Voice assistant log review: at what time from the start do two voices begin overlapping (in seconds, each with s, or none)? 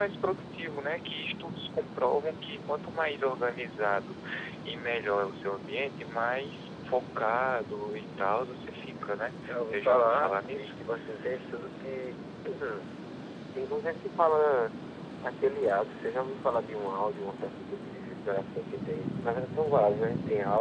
9.4 s